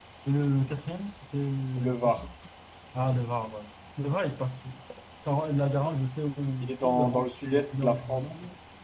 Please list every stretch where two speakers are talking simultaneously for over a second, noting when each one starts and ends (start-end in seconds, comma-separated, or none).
6.6-8.2